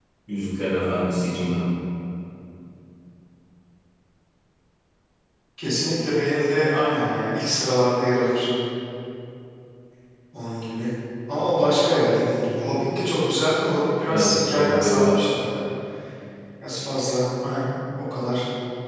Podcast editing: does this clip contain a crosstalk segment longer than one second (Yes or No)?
Yes